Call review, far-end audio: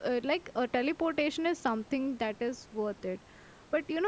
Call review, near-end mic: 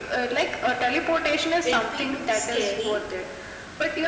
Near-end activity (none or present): present